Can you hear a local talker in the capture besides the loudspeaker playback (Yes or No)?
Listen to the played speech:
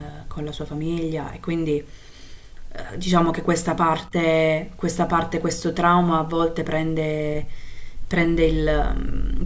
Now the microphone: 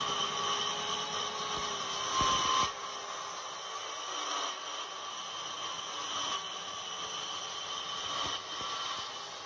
No